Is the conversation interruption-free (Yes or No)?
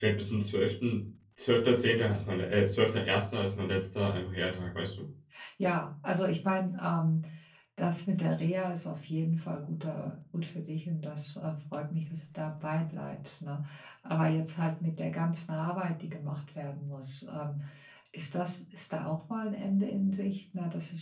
Yes